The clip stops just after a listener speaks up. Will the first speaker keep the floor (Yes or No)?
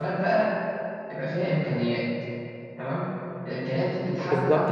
No